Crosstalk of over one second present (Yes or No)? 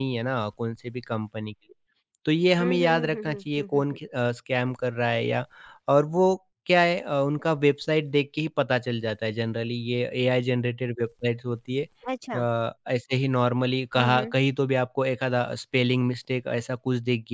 Yes